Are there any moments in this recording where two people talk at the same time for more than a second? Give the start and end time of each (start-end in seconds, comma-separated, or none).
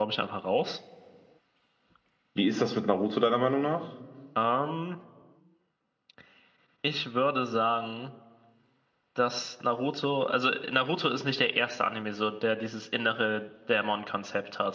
none